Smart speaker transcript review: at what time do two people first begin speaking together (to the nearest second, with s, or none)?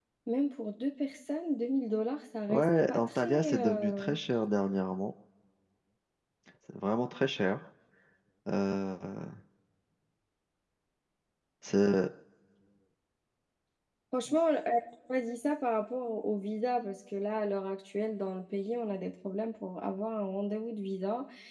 2 s